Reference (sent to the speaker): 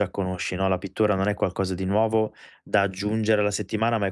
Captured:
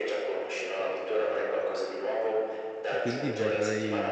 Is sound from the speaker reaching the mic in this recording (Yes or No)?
Yes